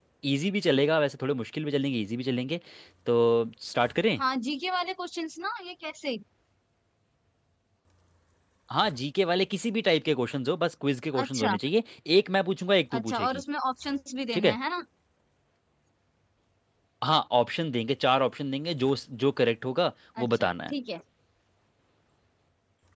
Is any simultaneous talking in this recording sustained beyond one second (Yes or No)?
No